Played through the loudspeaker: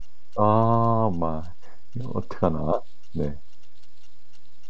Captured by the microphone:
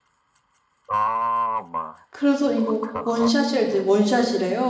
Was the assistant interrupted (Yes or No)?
Yes